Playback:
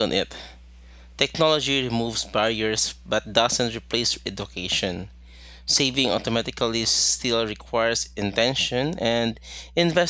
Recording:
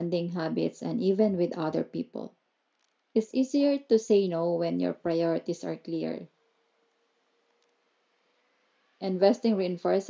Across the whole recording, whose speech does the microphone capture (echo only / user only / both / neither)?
user only